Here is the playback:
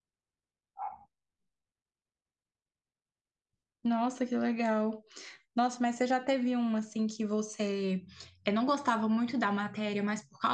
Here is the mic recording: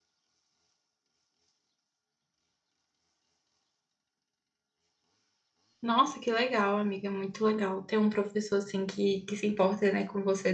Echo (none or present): none